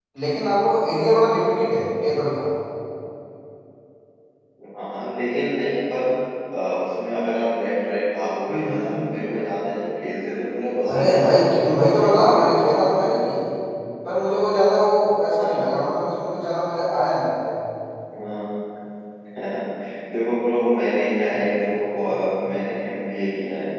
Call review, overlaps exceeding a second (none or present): present